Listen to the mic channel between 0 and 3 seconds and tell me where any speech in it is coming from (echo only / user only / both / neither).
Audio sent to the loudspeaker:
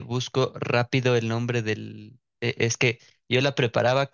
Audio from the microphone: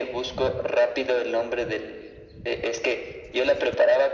echo only